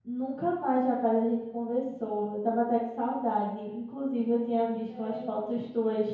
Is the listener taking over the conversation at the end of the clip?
No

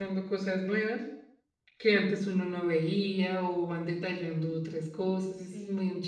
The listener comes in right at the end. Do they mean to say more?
Yes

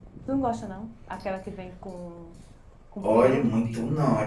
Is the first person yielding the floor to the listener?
Yes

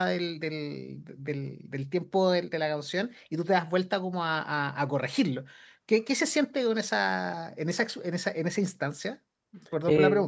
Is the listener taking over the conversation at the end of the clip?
Yes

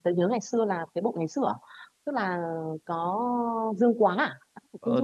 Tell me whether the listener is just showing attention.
No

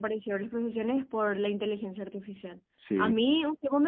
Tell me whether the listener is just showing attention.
Yes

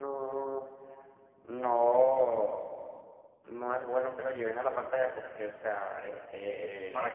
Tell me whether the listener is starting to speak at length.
No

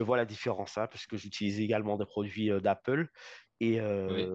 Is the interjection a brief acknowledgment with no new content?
Yes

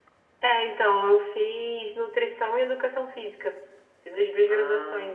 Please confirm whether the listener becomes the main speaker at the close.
No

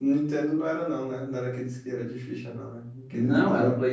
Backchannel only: No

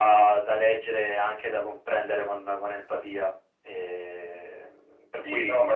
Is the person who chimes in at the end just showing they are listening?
No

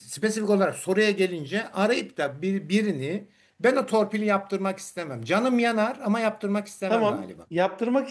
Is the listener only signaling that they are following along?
No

